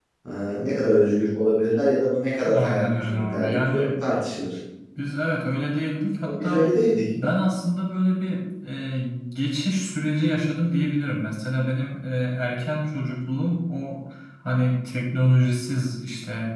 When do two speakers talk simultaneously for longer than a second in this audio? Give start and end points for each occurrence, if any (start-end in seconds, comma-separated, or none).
2.5-3.9